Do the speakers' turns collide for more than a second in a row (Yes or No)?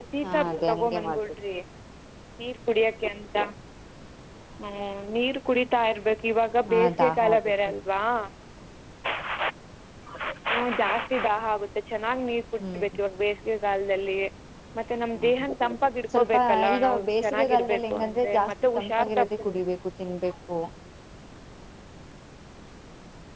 Yes